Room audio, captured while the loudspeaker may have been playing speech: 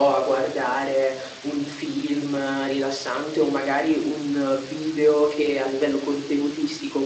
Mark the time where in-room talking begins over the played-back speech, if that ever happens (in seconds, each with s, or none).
none